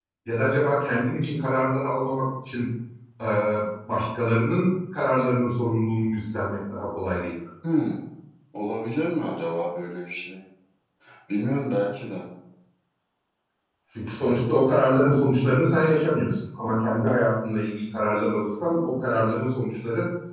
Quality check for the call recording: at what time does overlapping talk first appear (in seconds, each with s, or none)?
none